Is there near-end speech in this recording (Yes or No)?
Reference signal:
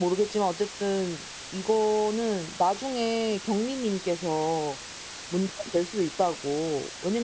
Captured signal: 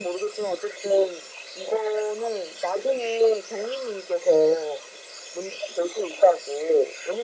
No